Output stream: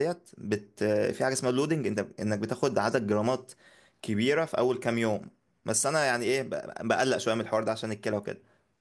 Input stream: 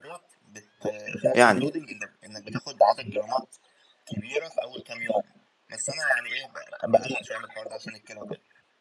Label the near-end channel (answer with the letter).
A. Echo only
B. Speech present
B